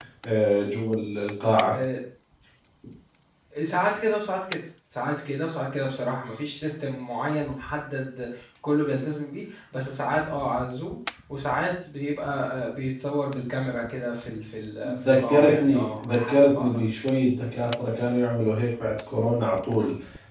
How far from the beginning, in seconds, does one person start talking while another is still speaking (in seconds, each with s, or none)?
14.8 s